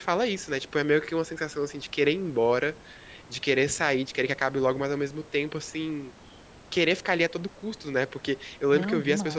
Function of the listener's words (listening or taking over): listening